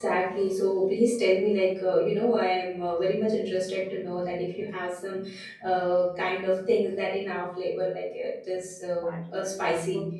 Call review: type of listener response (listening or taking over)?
taking over